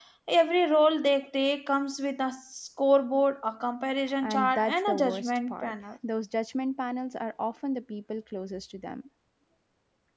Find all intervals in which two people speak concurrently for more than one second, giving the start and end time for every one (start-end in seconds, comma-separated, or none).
4.2-5.7